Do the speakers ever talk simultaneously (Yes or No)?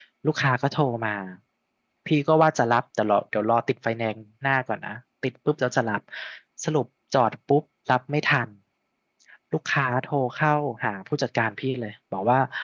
No